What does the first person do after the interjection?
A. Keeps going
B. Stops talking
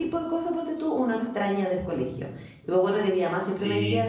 A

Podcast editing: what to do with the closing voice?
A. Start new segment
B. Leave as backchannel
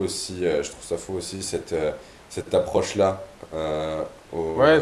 A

